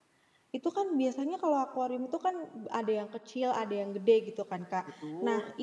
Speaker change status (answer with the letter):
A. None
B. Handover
A